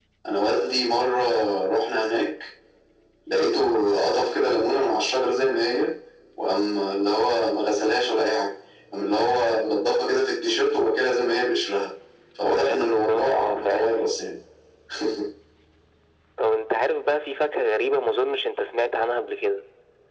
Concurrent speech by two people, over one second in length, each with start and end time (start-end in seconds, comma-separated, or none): 12.6-13.9